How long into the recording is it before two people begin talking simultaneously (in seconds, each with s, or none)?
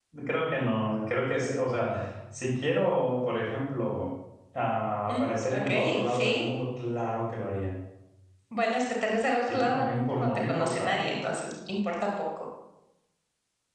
5.1 s